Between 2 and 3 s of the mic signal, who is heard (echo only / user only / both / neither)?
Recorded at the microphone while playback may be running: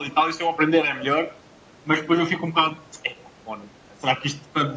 echo only